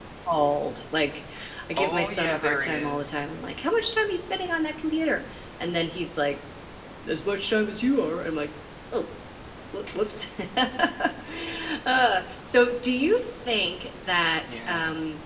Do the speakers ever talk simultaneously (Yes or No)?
Yes